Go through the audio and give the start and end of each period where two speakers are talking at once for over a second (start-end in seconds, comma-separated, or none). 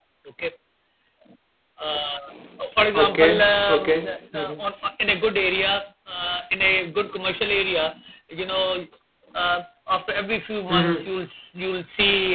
3.0-4.6